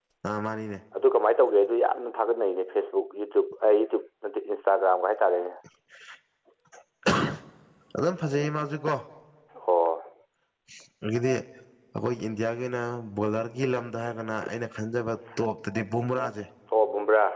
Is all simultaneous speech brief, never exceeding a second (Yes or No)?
Yes